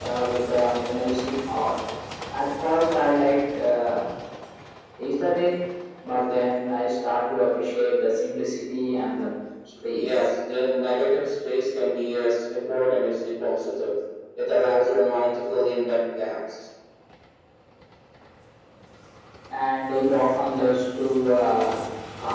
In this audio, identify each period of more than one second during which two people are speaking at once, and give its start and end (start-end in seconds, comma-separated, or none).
none